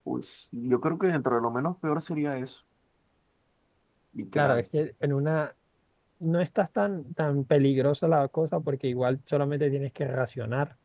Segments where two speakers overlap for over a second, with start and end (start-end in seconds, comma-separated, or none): none